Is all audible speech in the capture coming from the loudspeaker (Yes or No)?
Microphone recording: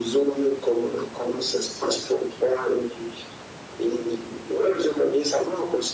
Yes